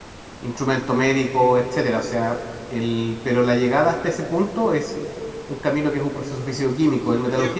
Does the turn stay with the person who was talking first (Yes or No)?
Yes